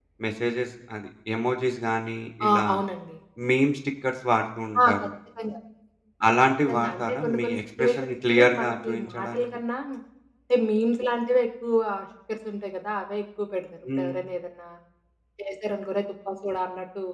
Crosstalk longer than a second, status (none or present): present